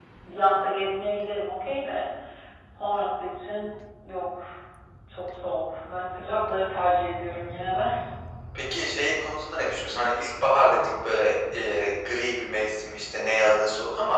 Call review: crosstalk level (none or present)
none